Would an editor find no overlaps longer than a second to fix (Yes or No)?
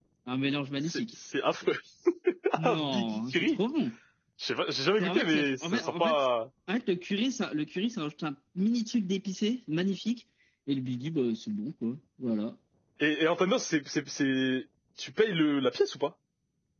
No